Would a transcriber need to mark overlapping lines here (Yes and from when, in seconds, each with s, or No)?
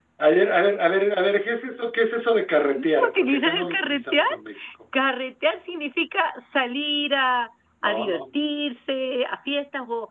Yes, from 2.8 s